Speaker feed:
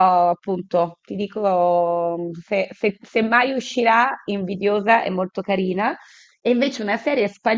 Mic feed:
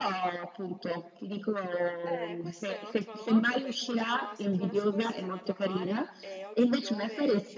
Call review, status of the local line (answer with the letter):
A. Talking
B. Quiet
A